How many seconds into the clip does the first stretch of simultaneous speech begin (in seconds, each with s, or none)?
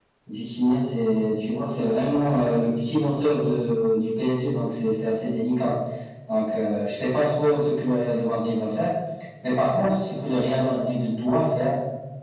none